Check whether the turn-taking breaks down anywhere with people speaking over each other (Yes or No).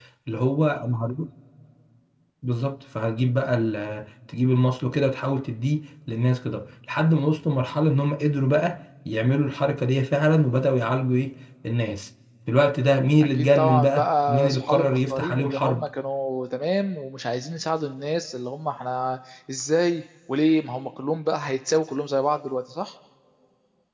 Yes